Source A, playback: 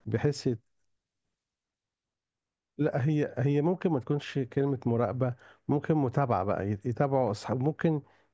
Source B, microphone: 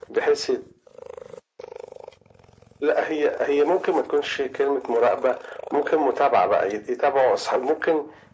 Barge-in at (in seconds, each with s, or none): none